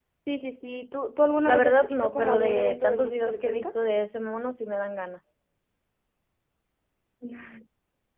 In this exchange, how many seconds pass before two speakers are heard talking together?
1.5 s

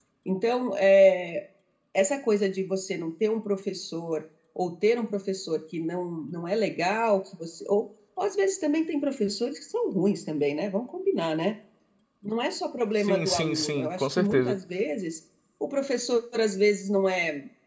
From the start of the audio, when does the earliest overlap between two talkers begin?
13.0 s

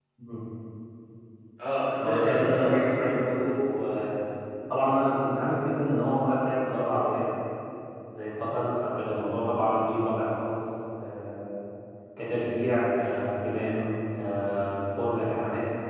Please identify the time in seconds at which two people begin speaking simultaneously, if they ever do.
2.0 s

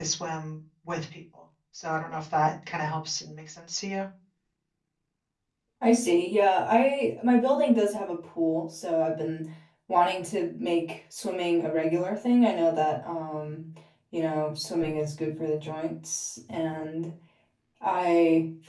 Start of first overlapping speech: none

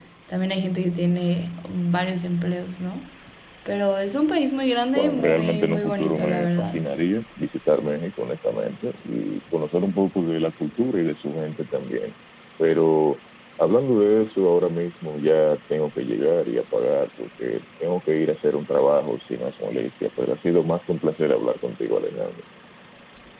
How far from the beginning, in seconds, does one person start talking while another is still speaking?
5.0 s

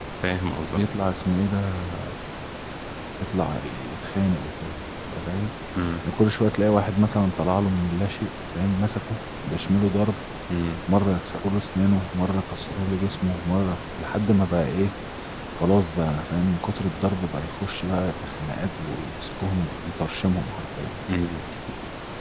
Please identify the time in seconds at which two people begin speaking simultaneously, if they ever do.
none

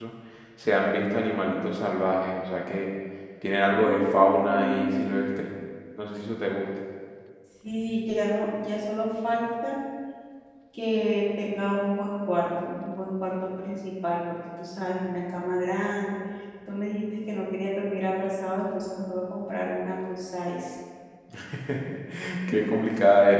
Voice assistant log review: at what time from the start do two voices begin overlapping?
3.7 s

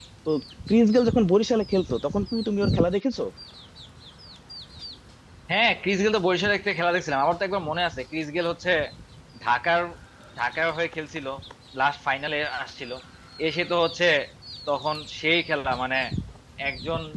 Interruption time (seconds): none

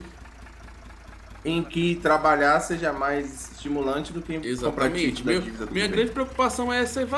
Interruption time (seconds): 4.4 s

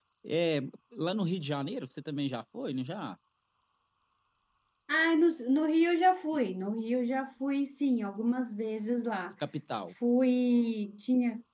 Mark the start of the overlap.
none

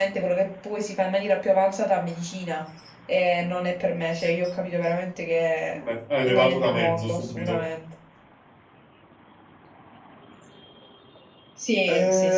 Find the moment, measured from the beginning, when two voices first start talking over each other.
6.3 s

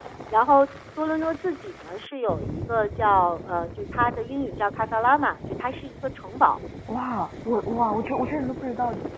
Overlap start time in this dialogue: none

